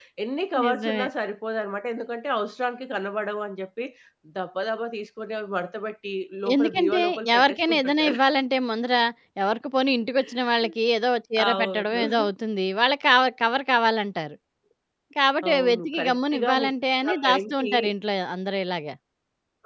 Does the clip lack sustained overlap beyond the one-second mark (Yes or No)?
No